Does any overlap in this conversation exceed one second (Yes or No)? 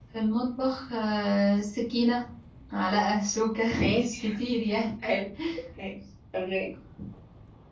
No